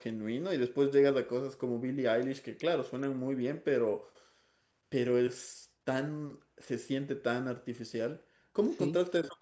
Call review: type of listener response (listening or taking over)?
listening